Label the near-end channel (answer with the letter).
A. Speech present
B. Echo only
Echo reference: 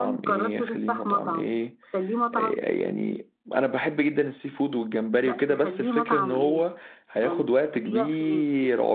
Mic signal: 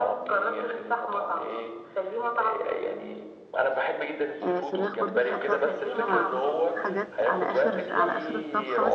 A